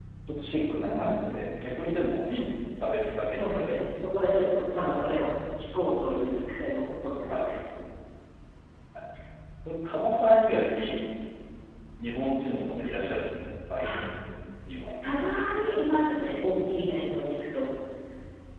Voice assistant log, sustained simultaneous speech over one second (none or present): none